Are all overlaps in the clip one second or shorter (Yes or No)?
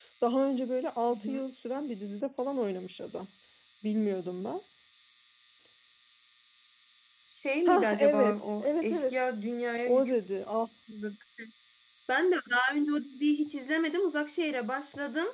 No